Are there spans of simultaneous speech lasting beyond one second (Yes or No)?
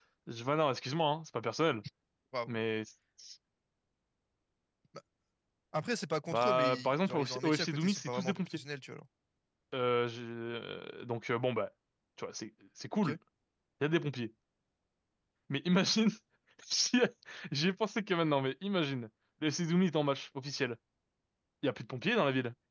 Yes